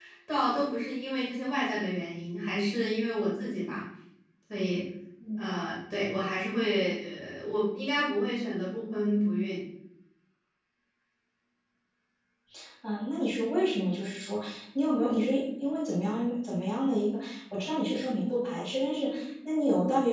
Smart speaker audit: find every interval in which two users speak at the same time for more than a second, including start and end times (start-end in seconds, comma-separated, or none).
none